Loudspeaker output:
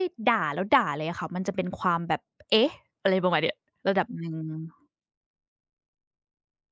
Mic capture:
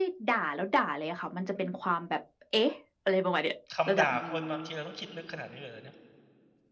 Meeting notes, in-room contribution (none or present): present